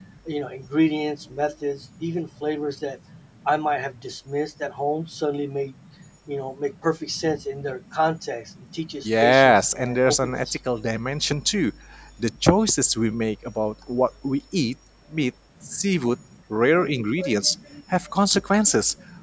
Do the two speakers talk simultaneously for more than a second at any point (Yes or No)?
Yes